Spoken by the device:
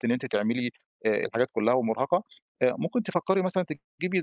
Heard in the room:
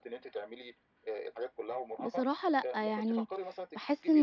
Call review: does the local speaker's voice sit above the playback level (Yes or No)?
Yes